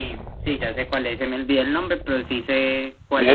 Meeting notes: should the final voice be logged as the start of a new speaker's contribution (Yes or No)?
Yes